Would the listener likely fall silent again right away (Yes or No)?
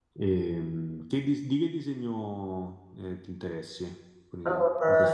No